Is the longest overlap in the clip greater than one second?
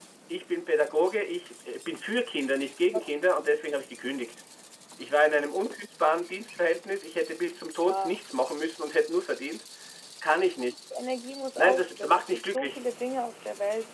Yes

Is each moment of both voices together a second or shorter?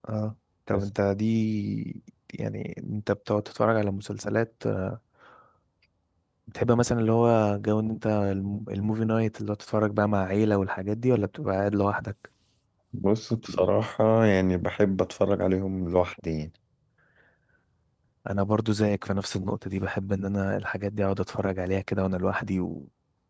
Yes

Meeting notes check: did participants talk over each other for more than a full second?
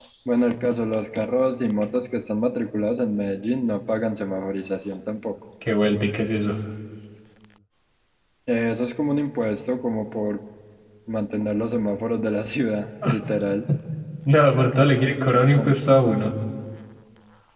No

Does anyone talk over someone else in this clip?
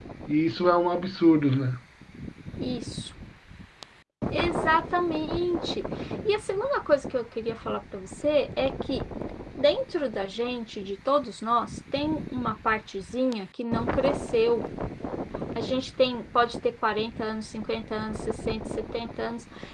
No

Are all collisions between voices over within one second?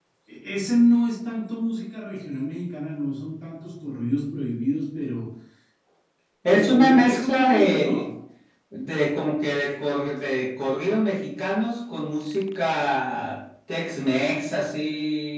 No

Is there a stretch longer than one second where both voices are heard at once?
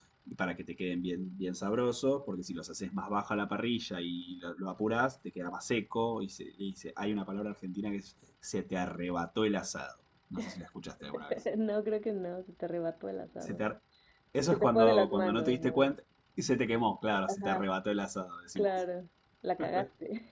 Yes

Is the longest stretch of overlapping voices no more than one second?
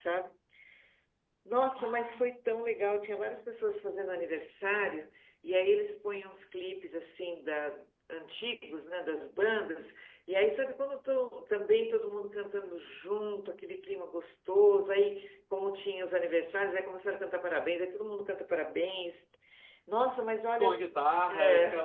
Yes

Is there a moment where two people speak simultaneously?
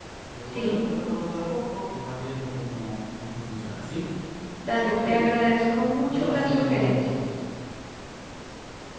Yes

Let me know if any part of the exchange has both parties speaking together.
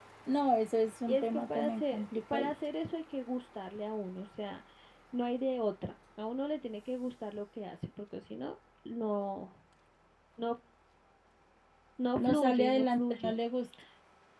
Yes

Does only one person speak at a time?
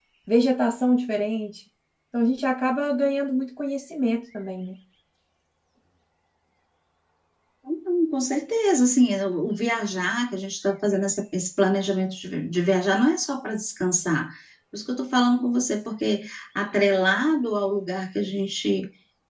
Yes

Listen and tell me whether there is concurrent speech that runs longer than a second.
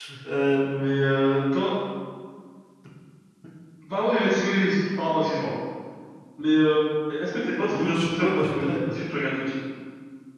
Yes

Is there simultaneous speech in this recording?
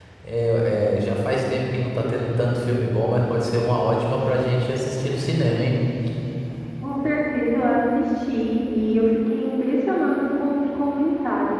No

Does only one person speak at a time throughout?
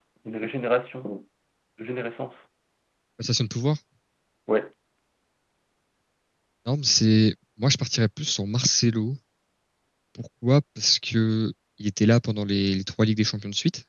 Yes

